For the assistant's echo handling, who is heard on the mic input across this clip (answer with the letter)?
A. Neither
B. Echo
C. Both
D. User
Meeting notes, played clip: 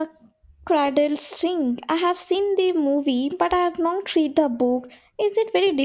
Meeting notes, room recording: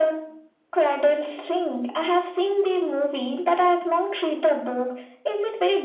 B